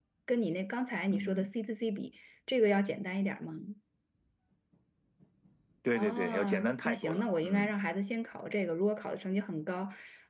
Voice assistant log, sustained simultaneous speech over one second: present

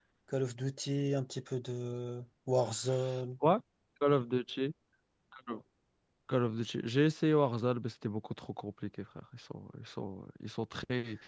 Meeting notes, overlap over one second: none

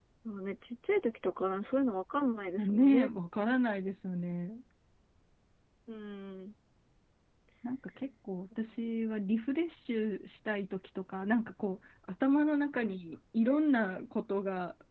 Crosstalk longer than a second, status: none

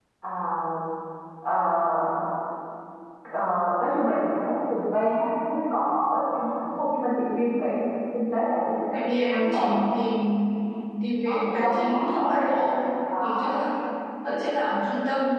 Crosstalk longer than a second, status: present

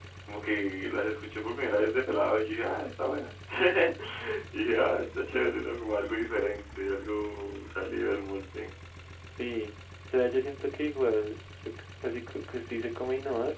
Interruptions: none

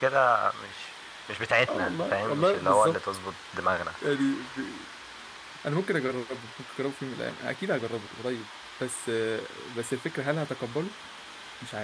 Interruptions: present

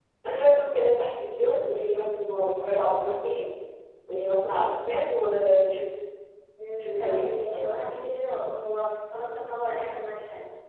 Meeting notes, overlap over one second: present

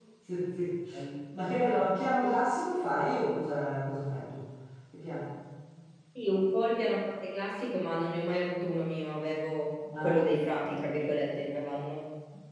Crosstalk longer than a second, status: none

